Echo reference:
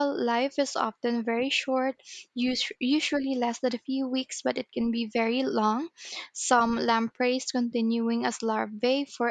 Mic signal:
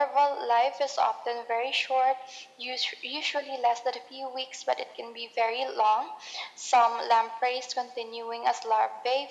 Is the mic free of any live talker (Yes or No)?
Yes